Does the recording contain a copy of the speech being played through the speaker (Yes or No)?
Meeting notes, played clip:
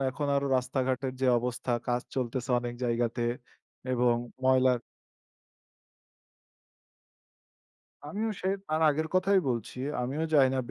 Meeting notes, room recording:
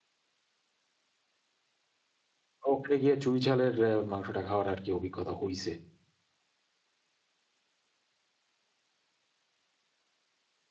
No